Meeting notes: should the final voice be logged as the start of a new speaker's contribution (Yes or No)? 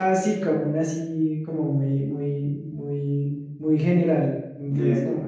Yes